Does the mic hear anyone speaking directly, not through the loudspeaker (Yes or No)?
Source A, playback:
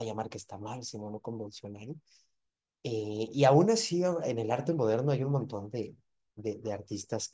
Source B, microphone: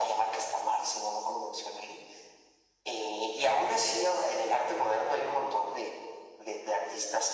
No